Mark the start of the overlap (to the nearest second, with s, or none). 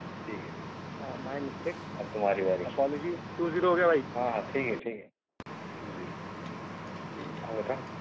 none